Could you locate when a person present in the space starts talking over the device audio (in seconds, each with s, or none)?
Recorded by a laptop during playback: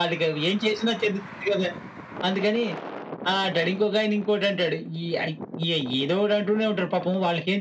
none